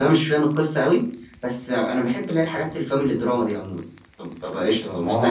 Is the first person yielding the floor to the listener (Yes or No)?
Yes